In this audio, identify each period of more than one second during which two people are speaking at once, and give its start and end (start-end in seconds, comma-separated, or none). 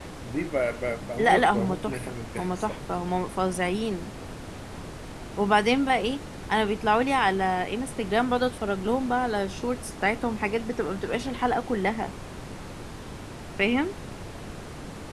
1.2-2.8